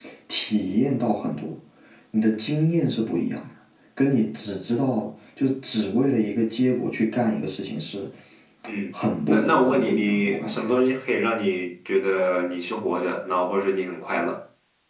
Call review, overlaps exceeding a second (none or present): present